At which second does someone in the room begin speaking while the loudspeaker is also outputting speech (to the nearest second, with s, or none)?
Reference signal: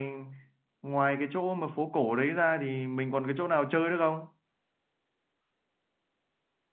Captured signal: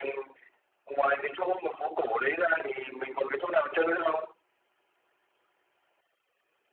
none